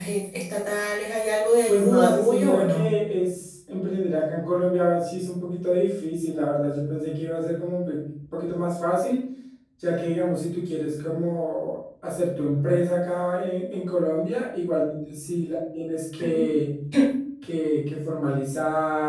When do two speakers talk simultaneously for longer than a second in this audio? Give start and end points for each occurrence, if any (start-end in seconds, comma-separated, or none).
1.7-2.9